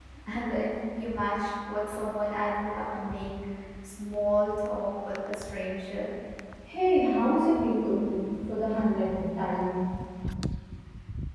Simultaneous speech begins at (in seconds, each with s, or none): none